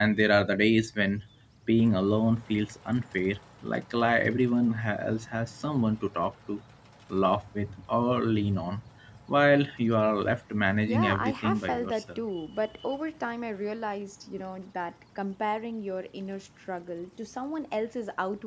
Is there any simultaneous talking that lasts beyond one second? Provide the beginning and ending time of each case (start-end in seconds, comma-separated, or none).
10.9-12.2